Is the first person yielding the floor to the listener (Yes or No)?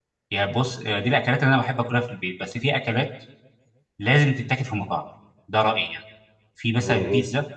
No